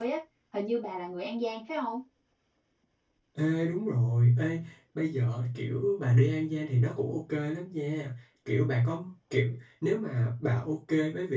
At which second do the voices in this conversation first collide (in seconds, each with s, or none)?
none